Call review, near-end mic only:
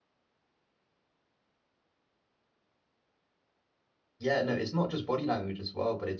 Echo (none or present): none